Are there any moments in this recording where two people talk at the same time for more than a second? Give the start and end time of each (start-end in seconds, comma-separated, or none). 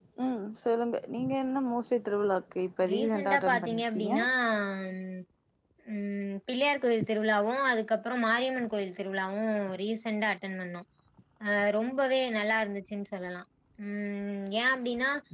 2.9-4.1